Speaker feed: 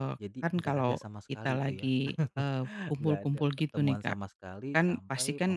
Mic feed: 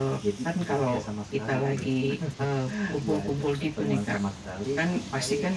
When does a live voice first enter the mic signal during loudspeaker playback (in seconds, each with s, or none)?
none